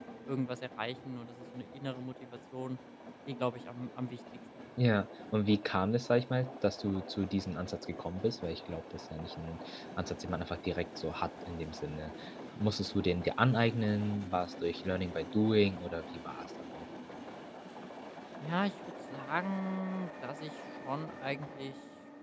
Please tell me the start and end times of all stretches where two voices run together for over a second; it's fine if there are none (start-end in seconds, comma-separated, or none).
none